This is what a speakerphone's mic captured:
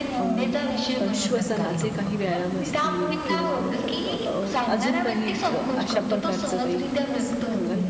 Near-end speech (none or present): present